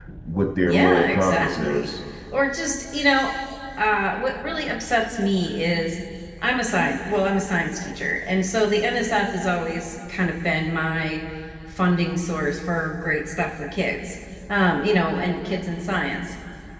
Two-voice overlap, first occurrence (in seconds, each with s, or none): 0.6 s